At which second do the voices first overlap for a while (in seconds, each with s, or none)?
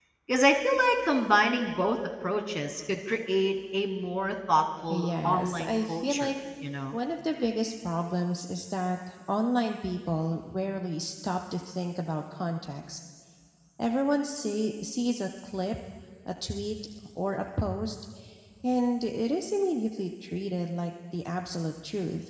4.9 s